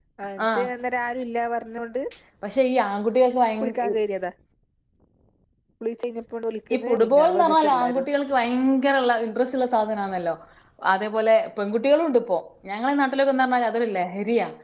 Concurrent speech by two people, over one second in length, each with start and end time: 6.7-8.1

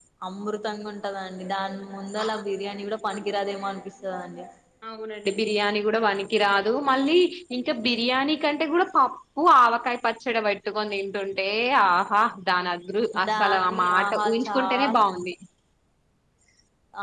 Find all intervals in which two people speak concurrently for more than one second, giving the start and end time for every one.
13.3-15.0

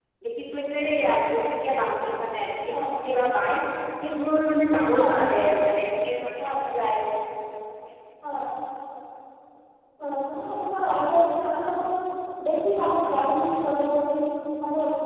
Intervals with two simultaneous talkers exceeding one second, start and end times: none

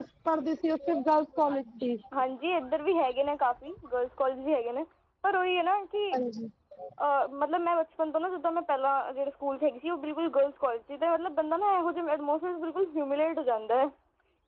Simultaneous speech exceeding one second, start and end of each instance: none

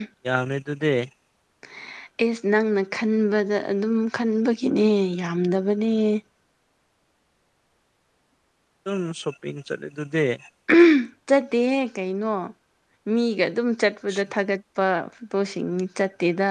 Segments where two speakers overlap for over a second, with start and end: none

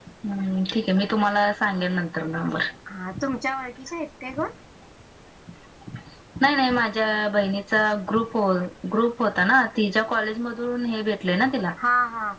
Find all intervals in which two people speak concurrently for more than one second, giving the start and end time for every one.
none

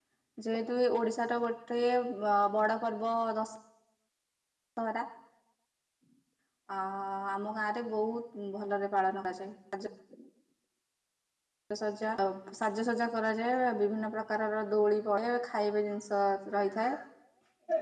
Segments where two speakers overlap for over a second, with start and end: none

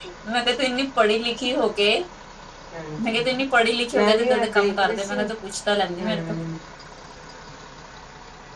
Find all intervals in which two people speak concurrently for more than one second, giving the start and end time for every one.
3.9-5.2

